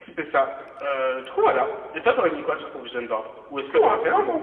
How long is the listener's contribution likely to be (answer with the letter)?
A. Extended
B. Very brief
A